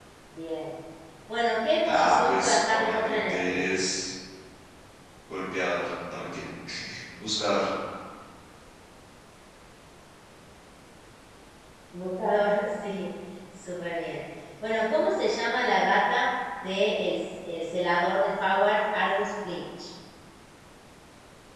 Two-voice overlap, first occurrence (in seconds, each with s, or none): 1.8 s